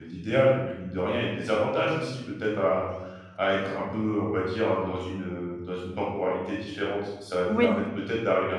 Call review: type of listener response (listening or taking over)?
listening